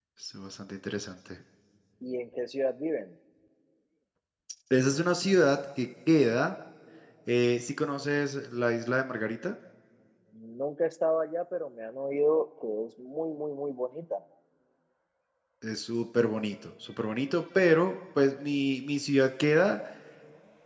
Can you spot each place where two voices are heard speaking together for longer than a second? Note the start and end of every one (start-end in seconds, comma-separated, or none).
none